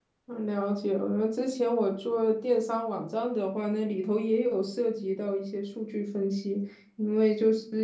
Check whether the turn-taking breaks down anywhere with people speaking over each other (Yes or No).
No